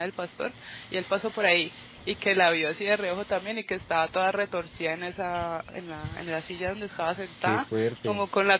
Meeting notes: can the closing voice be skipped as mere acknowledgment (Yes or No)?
Yes